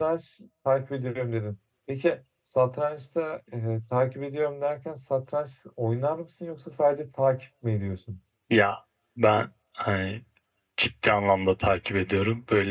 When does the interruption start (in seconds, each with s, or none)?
none